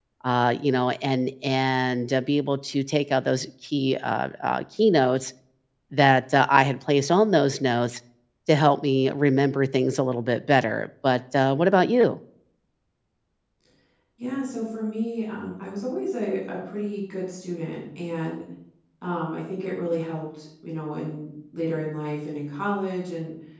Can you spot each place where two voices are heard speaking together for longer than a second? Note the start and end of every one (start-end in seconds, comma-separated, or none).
none